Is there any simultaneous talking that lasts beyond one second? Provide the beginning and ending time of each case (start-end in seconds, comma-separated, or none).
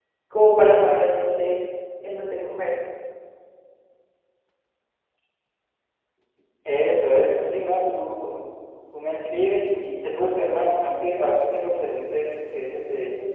none